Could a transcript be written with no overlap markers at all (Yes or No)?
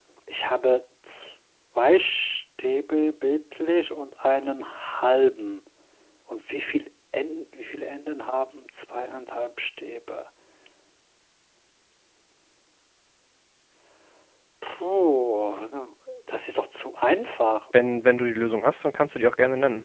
Yes